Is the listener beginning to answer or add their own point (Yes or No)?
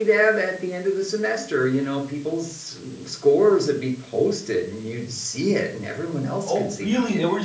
Yes